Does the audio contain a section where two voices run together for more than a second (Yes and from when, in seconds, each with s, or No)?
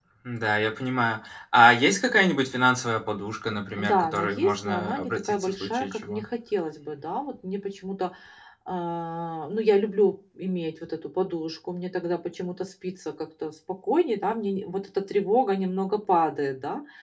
Yes, from 3.8 s